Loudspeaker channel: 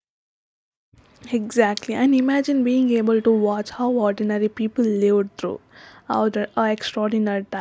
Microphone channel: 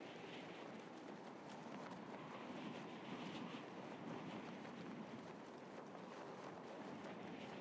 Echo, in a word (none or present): none